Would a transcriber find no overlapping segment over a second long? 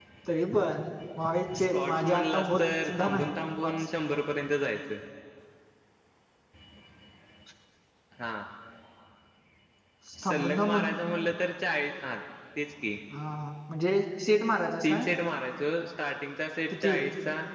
No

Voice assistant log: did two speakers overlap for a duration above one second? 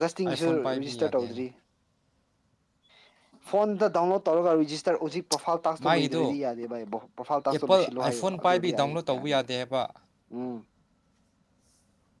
Yes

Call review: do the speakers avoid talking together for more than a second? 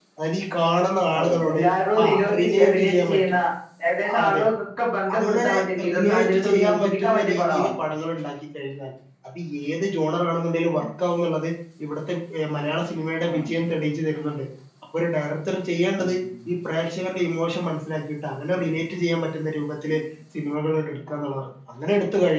No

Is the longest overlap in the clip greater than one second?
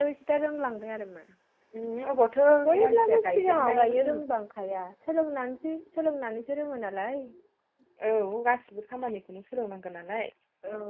Yes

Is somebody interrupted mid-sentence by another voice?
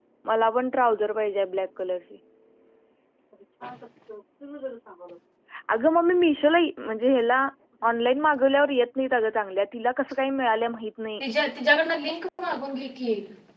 No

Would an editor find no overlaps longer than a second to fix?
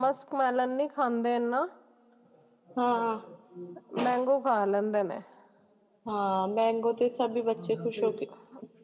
Yes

